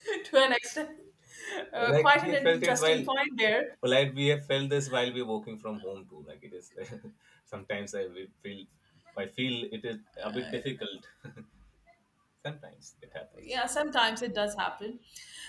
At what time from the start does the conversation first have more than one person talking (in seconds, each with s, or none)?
1.8 s